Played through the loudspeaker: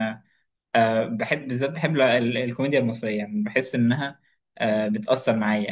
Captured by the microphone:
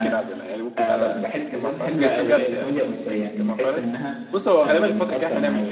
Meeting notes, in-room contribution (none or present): present